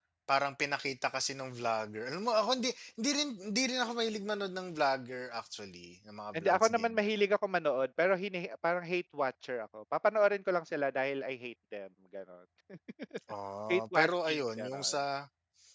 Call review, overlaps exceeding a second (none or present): present